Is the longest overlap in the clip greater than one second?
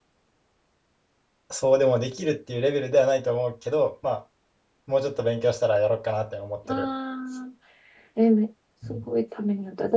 No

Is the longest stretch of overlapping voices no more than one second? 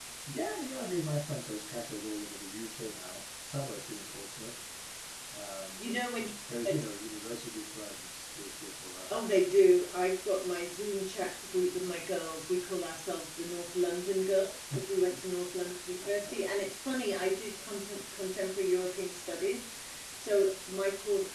Yes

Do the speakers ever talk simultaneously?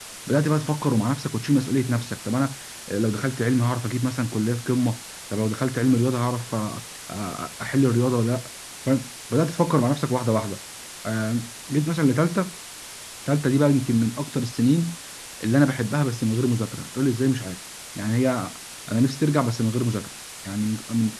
No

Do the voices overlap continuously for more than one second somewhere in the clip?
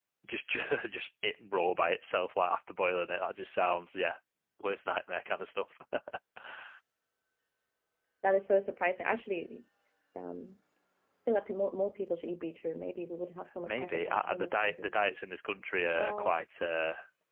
Yes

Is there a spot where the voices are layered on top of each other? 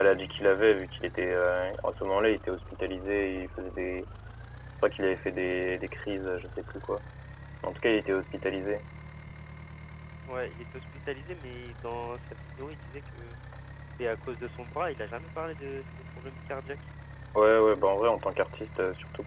No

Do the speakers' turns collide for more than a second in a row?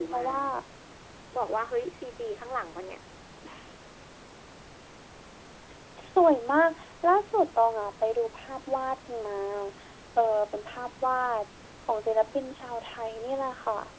No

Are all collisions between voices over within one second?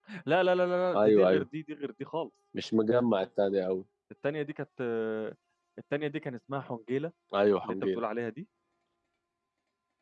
Yes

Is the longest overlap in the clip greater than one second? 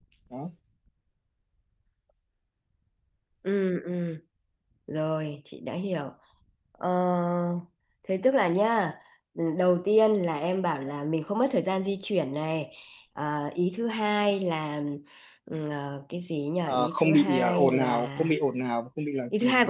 Yes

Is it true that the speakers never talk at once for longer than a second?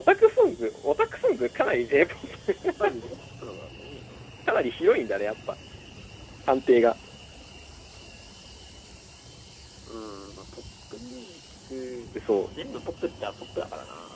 Yes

